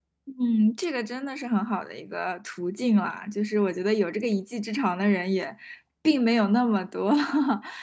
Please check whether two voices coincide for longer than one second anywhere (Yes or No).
No